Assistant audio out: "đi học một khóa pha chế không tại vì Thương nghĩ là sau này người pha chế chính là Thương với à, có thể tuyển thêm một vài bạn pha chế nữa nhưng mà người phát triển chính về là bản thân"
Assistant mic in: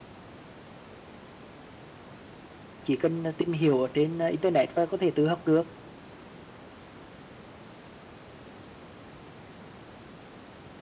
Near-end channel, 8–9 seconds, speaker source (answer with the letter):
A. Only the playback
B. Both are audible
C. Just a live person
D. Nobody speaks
D